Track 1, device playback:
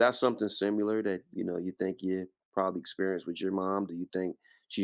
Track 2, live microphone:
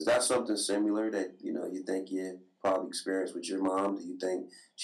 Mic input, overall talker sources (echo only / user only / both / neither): echo only